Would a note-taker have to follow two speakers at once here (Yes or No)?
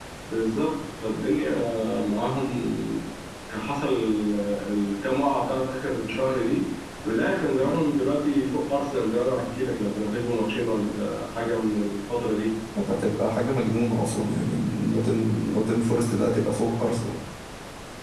No